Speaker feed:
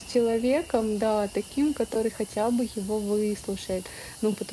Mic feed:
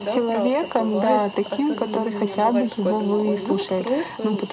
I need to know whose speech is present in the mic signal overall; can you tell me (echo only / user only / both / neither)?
both